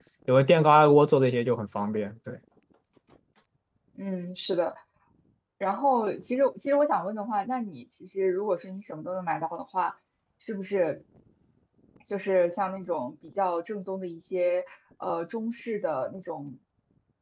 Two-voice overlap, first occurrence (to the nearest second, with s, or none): none